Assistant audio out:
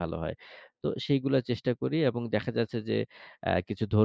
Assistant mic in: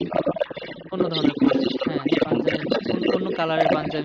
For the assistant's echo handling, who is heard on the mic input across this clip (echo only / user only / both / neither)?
both